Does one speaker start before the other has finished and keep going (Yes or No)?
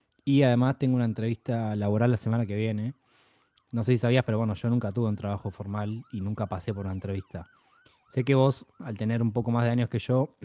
No